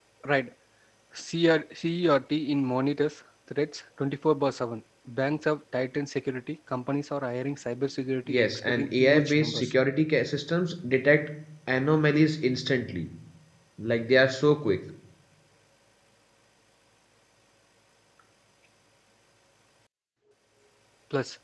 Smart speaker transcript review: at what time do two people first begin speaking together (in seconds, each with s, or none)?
8.3 s